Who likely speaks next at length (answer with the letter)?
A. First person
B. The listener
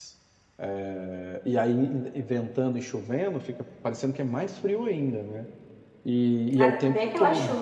B